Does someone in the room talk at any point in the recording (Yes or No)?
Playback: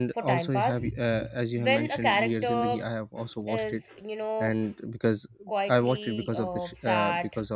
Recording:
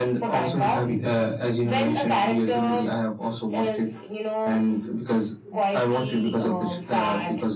No